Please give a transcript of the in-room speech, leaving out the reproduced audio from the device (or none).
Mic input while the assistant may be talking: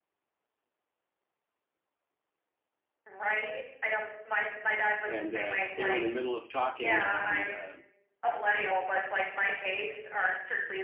and uh, they were in the middle of talking, and uh,